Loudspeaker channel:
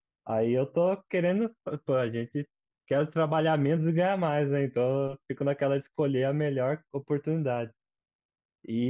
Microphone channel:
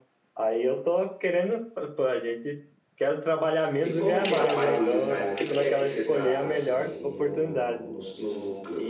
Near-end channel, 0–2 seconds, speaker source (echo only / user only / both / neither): echo only